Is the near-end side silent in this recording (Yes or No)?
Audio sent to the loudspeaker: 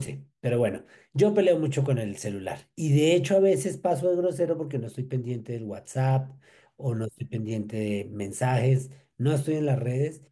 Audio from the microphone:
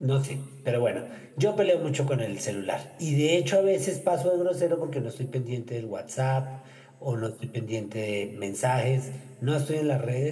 Yes